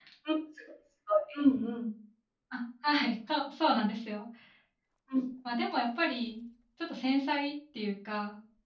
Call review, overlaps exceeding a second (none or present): none